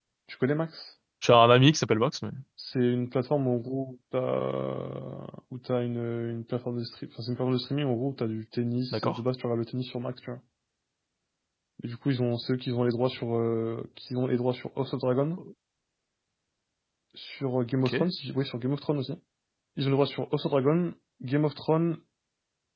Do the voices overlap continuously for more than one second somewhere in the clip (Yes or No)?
No